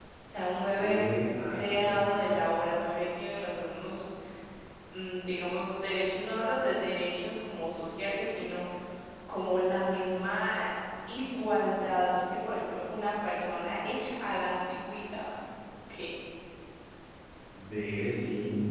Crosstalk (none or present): present